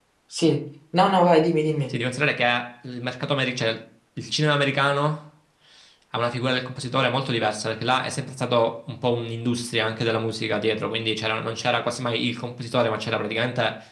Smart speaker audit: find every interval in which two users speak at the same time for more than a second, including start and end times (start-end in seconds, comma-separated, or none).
none